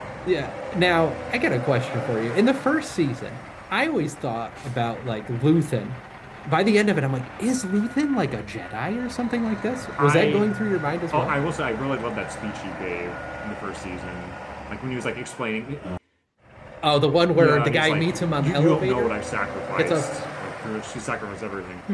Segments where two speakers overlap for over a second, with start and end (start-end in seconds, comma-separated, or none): 17.3-19.1